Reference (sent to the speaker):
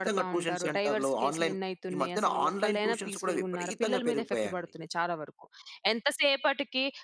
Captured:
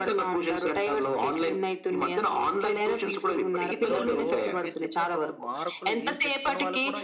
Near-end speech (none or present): present